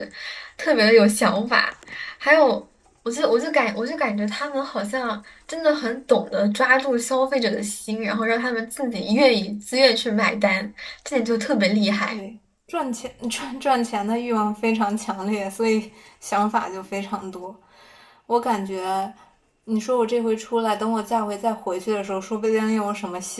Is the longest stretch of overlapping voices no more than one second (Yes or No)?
Yes